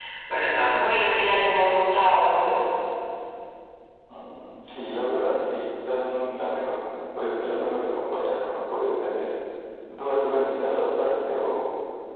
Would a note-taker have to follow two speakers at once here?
No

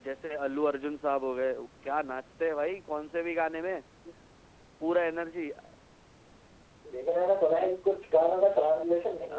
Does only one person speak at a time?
Yes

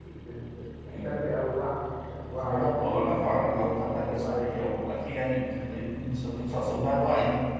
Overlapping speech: Yes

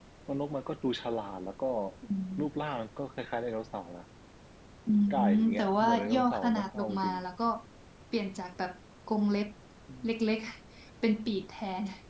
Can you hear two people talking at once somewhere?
Yes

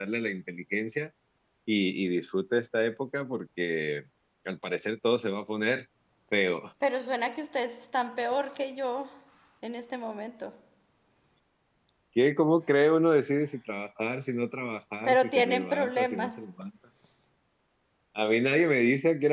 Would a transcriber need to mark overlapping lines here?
Yes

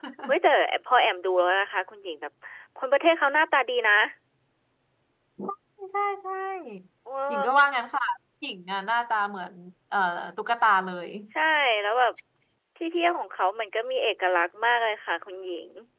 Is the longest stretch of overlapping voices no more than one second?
Yes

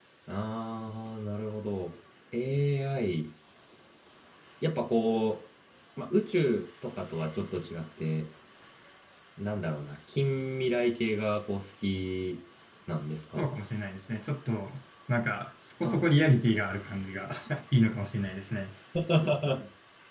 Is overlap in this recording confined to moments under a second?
Yes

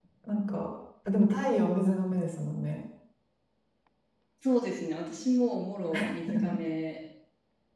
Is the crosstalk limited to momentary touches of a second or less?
Yes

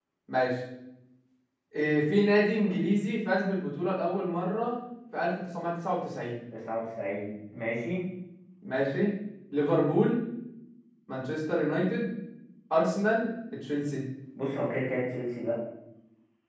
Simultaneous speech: No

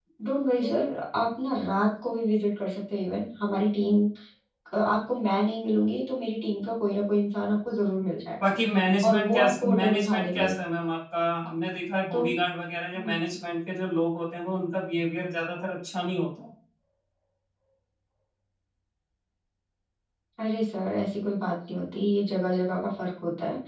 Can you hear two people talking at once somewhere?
Yes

